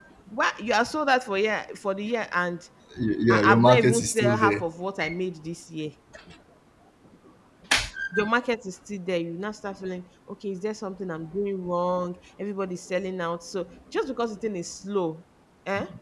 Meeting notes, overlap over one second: present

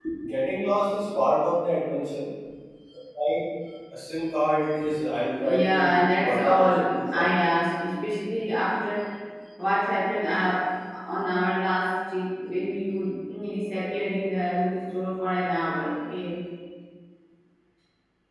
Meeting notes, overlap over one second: present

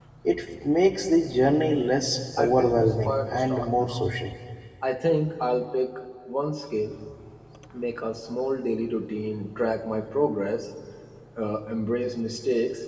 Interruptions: present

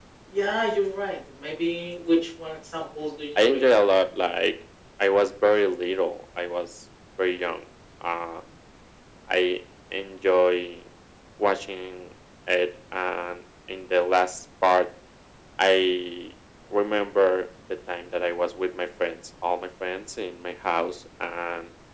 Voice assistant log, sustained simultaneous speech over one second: none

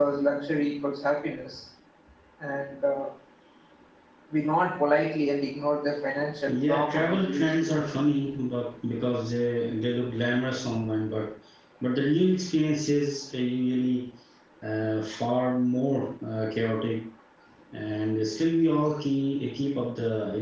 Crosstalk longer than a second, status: present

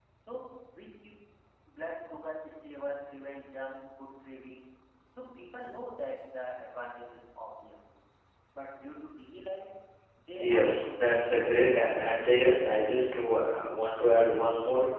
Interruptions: present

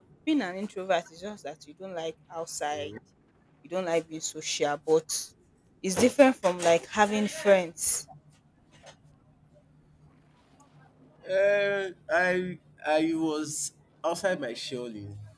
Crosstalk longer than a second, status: none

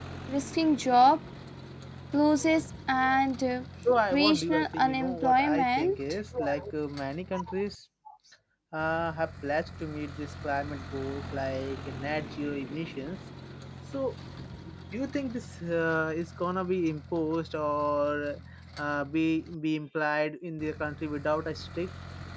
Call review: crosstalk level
present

